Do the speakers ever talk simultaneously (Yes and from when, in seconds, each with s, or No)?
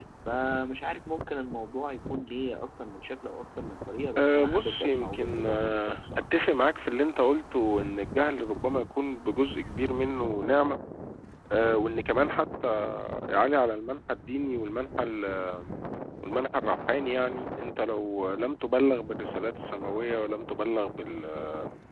Yes, from 4.2 s